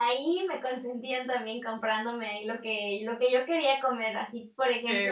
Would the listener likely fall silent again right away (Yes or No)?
Yes